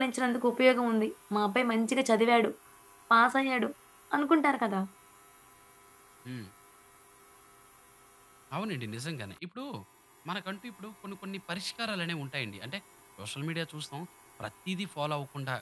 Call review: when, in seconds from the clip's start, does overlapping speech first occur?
none

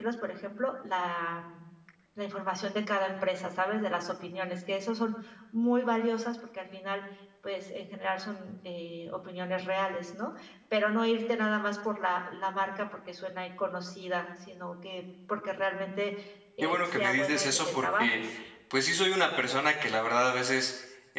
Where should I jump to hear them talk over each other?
16.6 s

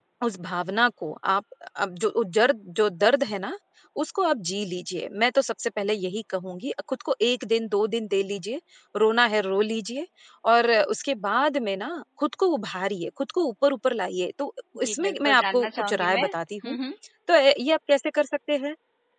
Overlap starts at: 14.8 s

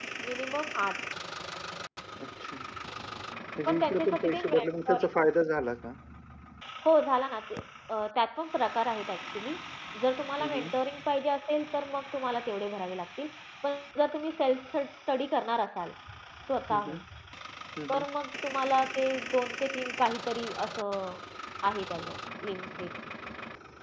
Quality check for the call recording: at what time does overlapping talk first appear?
3.7 s

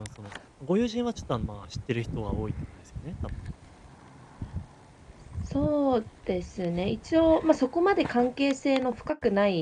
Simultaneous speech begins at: none

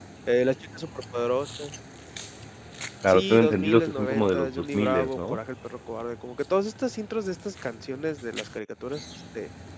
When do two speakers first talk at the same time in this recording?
3.1 s

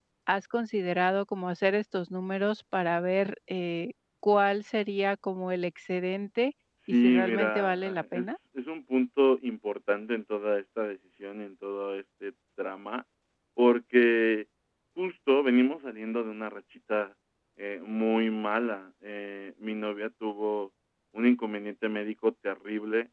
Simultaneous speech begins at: 6.9 s

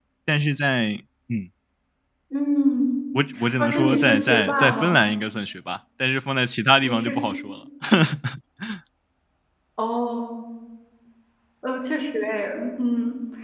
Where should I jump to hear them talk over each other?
3.5 s

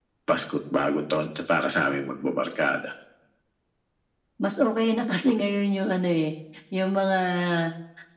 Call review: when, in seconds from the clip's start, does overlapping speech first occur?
none

